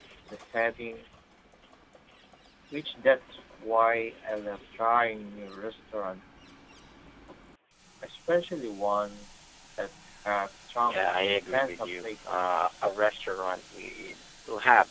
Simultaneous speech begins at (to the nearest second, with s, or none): 11 s